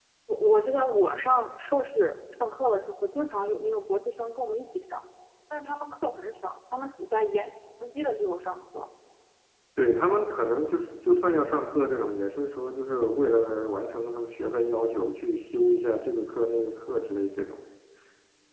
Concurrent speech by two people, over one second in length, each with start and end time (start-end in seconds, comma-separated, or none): none